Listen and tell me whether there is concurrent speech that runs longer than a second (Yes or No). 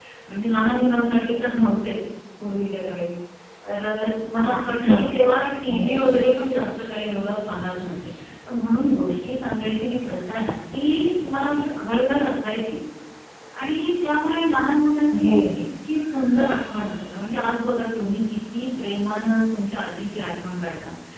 Yes